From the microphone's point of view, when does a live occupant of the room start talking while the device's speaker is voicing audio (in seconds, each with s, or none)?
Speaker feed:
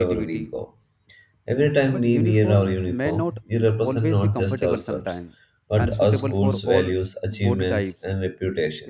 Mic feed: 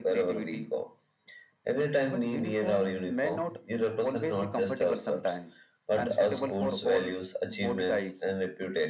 none